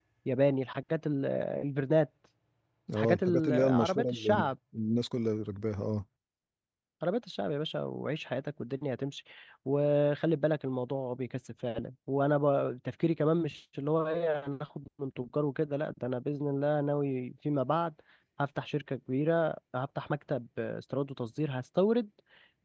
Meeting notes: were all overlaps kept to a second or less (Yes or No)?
No